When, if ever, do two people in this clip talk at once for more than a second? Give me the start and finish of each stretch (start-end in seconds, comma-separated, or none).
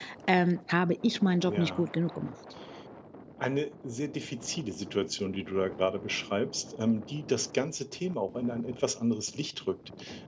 none